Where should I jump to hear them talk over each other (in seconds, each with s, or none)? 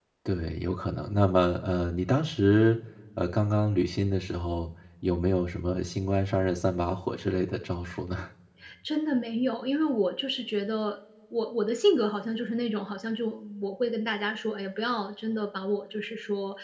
none